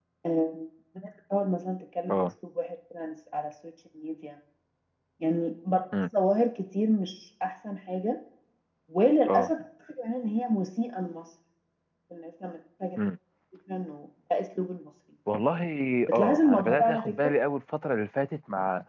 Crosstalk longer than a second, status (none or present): present